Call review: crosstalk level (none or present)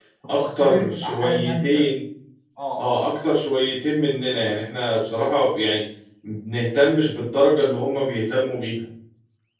present